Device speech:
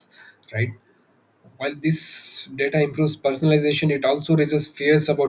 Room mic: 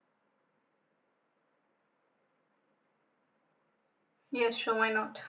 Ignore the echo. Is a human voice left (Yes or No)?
Yes